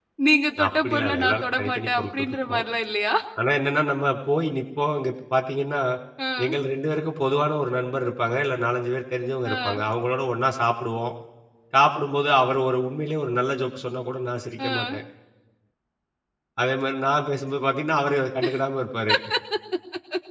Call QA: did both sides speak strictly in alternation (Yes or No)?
No